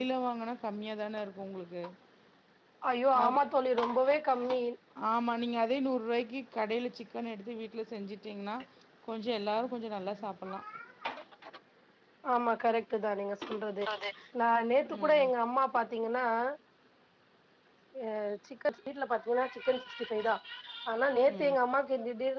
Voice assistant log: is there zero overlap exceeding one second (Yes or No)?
Yes